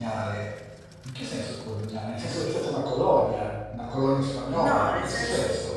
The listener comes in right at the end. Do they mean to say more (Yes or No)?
Yes